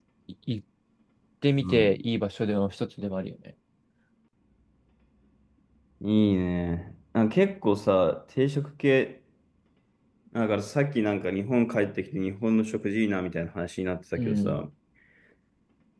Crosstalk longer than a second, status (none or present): none